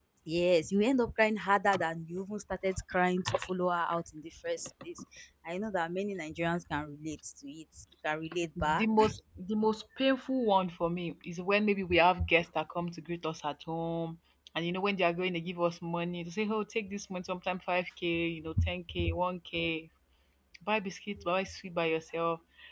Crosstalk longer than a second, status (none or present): none